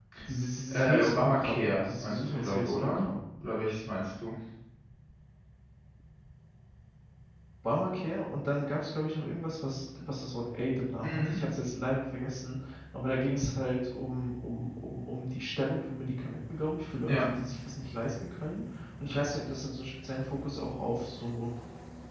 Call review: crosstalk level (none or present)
present